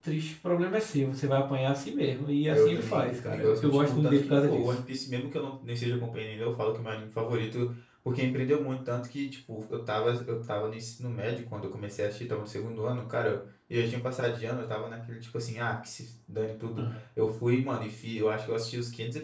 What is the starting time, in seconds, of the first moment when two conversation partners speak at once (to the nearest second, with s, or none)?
3 s